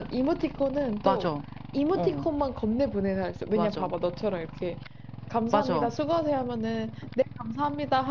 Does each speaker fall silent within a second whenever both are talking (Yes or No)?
Yes